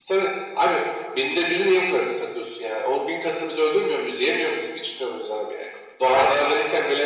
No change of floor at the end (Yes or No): Yes